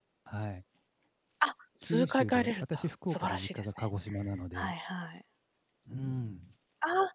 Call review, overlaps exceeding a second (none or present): present